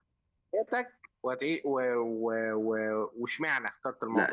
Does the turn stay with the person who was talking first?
No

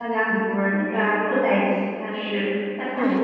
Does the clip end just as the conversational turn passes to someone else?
Yes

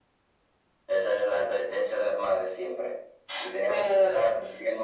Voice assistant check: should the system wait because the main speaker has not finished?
Yes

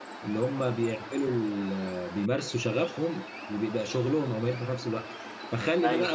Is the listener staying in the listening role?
Yes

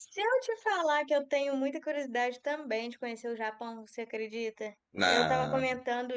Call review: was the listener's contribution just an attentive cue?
Yes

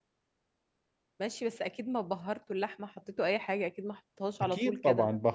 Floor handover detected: Yes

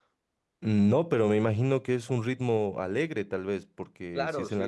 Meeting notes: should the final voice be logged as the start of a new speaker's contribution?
Yes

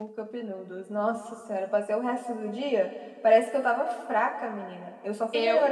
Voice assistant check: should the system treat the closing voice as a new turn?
No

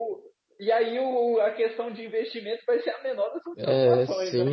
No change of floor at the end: No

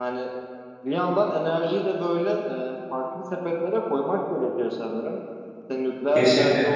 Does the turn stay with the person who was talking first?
Yes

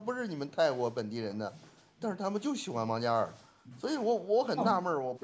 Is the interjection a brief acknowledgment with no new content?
No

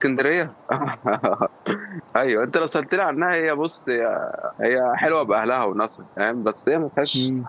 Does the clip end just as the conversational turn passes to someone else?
No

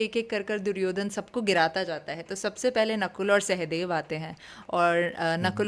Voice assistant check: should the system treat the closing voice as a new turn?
No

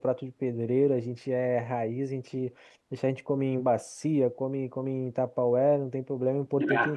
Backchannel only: Yes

